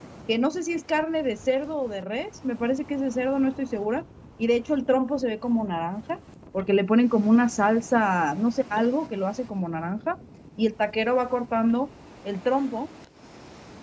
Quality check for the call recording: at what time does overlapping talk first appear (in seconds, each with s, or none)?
none